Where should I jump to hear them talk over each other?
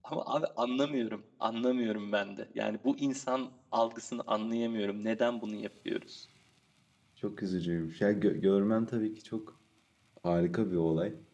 none

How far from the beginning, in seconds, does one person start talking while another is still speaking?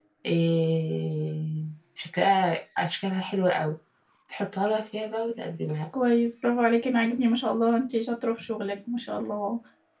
none

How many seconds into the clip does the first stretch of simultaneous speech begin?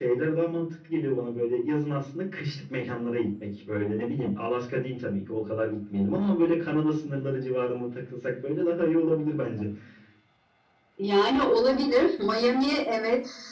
none

